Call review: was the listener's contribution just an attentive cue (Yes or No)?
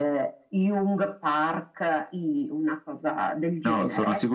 No